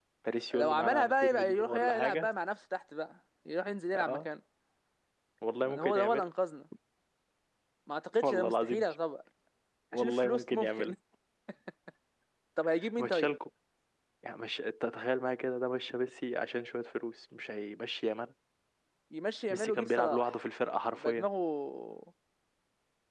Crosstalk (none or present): present